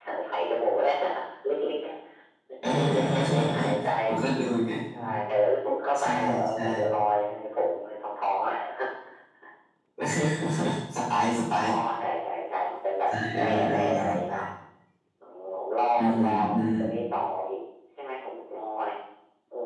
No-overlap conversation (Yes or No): No